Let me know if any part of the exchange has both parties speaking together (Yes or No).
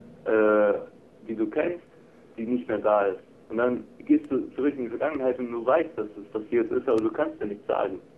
No